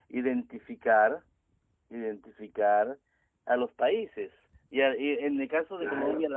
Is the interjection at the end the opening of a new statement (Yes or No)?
No